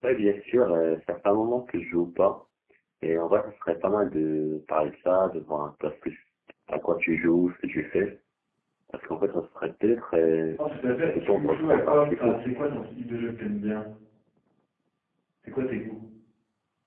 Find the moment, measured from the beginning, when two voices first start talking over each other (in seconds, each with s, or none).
11.2 s